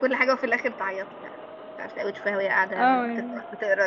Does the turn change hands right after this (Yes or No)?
No